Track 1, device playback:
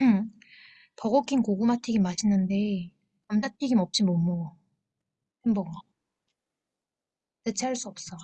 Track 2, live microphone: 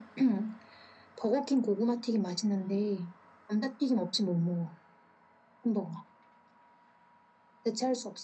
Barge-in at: none

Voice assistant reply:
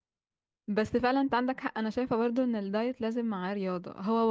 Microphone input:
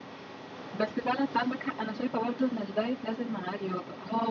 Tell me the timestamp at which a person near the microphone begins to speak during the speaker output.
none

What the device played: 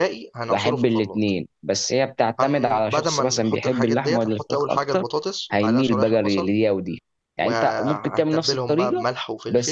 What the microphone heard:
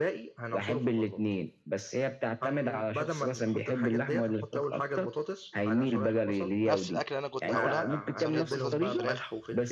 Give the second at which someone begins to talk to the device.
7 s

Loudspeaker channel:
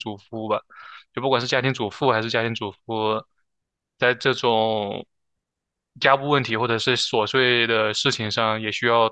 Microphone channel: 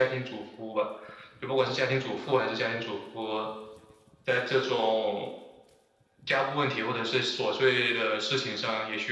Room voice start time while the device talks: none

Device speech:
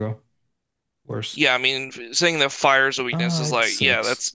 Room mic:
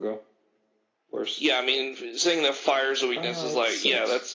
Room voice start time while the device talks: none

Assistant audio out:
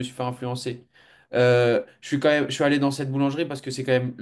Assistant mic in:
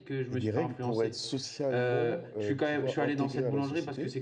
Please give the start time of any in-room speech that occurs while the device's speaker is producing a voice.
0 s

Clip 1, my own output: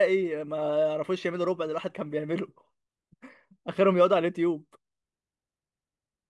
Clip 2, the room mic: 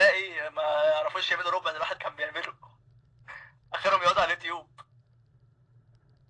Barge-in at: none

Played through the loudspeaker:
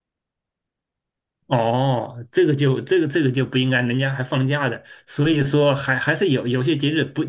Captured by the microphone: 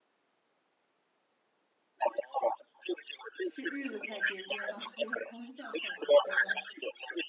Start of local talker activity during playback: 3 s

